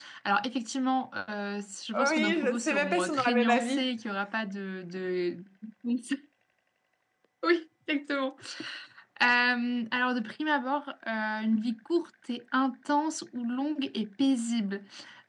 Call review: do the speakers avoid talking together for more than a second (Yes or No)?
No